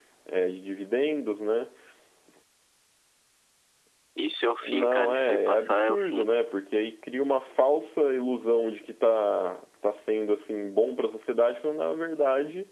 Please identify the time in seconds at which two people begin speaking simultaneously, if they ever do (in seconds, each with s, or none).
4.6 s